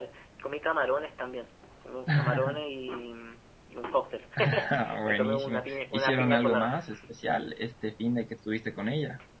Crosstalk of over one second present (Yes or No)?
Yes